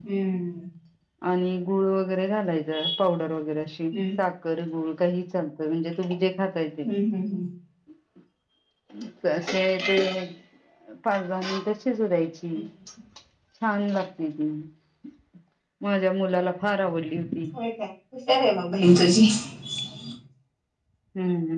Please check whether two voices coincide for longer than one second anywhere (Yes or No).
No